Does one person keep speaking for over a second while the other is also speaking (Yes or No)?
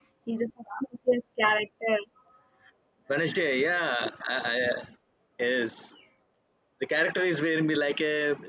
No